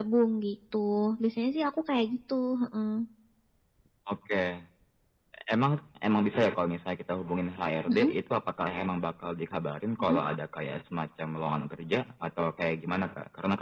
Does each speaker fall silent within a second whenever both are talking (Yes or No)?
Yes